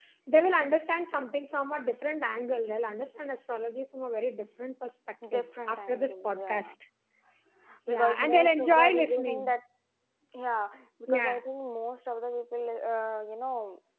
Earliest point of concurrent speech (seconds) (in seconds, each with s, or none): 5.3 s